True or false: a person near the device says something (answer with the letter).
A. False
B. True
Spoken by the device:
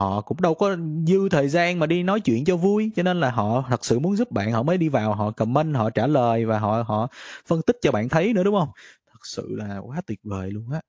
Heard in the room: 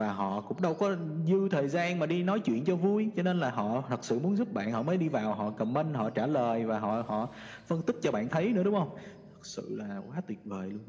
A